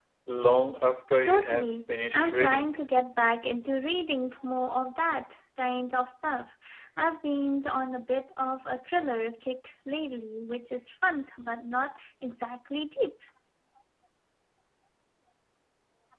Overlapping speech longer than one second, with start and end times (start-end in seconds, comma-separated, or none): 1.2-2.8